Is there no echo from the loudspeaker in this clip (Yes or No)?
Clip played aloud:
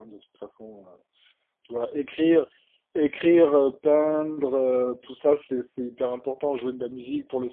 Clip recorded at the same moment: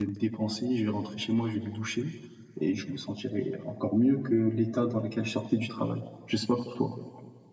Yes